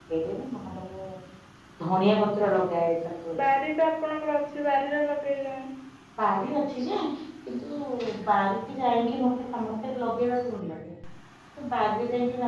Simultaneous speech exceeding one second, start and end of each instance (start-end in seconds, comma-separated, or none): none